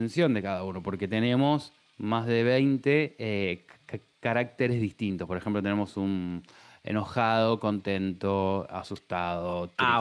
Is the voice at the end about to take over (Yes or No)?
Yes